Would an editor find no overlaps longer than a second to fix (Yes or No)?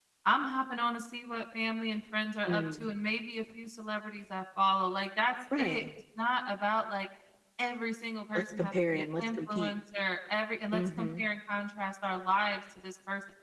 No